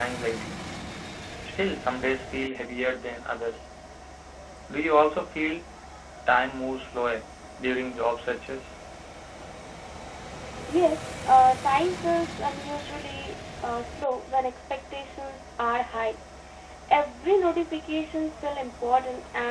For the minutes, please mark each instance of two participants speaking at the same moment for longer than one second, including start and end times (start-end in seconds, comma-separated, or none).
none